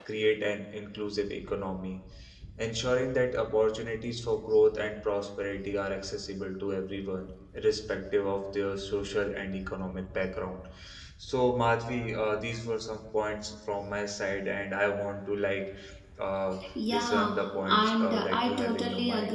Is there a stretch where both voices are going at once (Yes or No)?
Yes